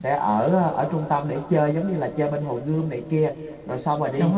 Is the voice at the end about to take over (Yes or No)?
No